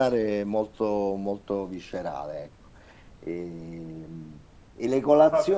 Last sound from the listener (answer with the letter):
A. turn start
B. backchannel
B